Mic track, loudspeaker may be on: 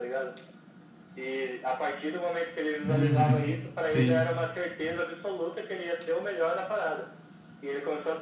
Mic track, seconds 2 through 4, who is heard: both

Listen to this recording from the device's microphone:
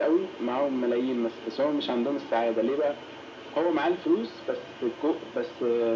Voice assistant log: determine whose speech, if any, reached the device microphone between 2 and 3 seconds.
echo only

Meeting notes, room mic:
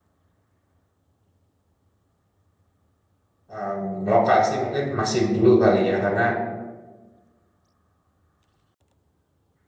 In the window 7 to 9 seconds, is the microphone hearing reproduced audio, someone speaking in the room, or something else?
neither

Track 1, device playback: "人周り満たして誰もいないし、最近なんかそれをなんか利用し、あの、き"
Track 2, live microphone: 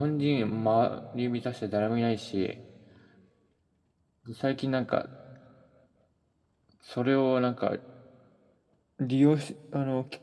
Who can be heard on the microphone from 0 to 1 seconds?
echo only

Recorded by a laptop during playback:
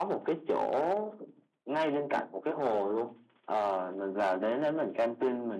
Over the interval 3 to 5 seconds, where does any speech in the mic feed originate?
echo only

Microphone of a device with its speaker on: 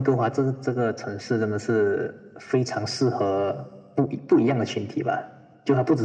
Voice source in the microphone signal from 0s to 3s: echo only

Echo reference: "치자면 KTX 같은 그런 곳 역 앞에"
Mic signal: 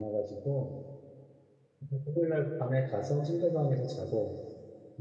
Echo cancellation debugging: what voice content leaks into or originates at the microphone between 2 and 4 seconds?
user only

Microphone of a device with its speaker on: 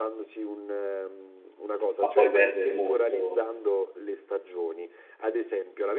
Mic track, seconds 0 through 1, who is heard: echo only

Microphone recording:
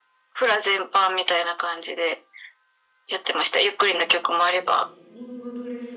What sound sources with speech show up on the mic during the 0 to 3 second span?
echo only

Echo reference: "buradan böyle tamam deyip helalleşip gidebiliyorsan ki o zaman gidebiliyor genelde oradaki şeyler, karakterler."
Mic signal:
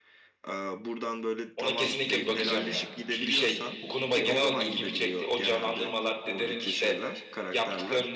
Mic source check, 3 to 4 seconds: both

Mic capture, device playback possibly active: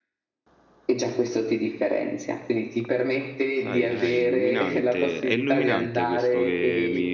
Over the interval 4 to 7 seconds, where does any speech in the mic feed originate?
both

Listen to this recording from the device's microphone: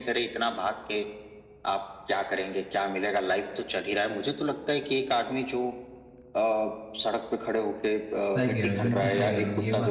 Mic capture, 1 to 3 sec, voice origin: echo only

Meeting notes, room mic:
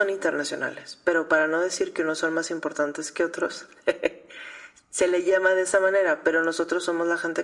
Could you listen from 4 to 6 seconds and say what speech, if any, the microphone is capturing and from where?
echo only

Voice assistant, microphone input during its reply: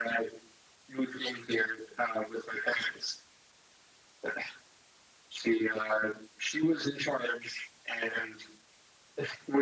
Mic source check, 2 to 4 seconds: echo only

